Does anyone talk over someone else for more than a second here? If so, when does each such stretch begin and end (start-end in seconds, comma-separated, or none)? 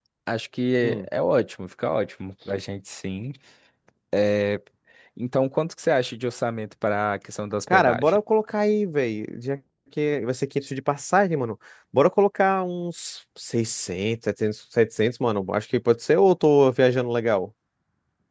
none